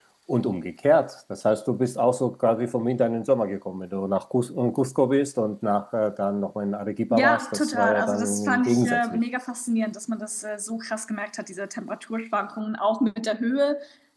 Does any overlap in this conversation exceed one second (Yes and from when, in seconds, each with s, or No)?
Yes, from 7.1 s